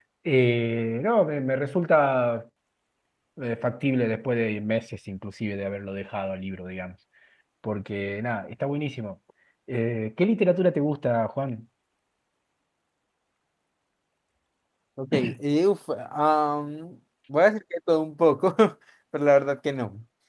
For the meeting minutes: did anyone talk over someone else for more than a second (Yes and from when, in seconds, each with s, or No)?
No